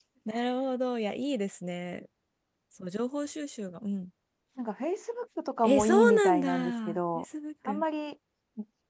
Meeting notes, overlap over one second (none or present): present